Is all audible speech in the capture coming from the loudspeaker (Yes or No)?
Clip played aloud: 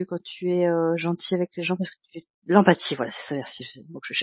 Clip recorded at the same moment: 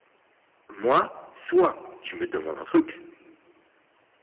No